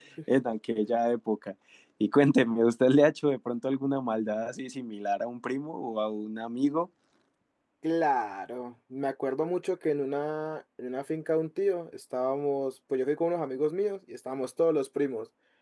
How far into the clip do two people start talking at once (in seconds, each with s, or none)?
none